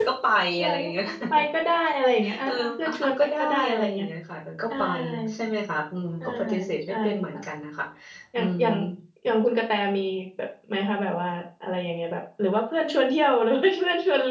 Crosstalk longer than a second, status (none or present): present